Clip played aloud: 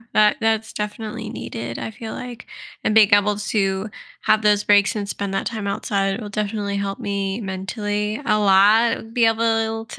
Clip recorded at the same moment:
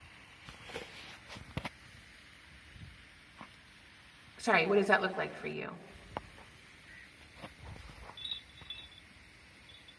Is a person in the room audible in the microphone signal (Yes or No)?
Yes